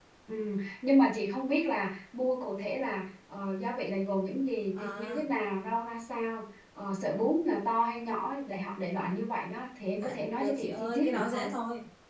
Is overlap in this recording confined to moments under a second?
No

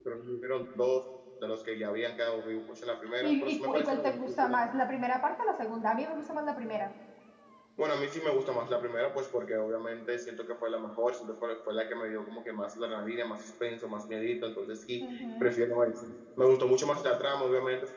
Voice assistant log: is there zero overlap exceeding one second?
No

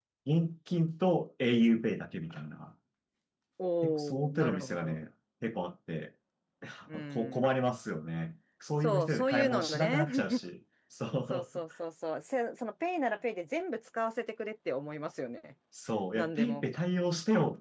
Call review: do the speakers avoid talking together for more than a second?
No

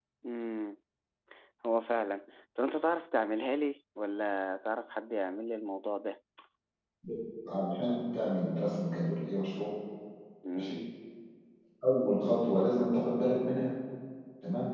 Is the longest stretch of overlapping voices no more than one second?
Yes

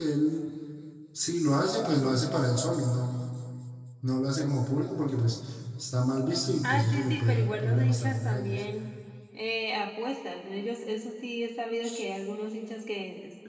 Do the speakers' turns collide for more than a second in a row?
Yes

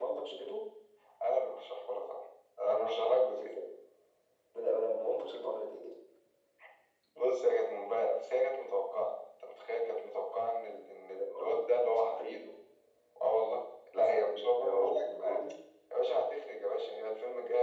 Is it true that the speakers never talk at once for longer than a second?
No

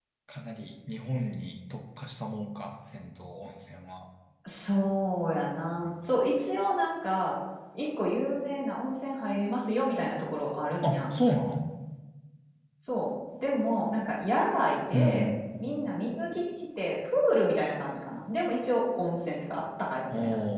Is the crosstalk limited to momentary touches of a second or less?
Yes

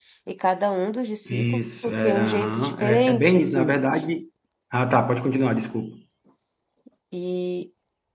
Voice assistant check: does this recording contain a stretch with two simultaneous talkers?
Yes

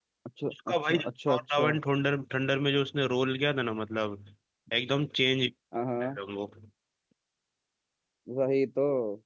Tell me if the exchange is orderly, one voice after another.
No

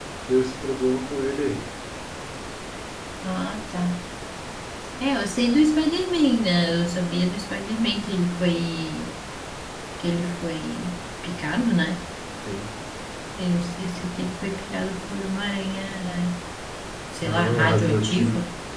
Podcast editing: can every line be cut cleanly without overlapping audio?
No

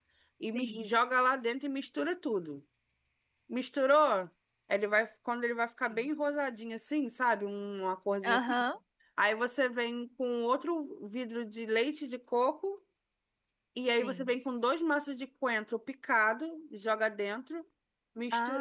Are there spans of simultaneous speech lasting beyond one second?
No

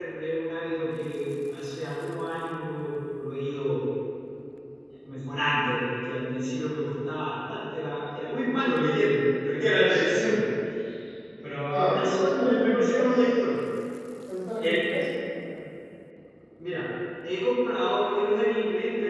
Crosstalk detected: Yes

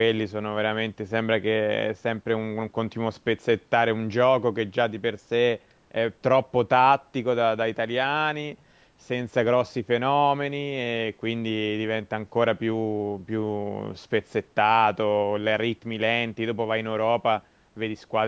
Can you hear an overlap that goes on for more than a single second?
No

